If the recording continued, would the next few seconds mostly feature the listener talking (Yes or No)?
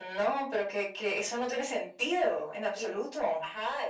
Yes